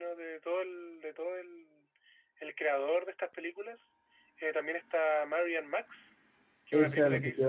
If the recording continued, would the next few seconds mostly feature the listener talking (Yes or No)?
Yes